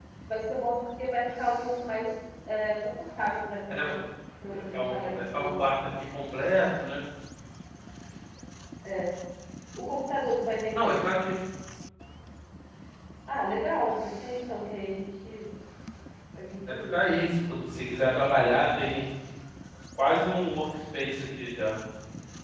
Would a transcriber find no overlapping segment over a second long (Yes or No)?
No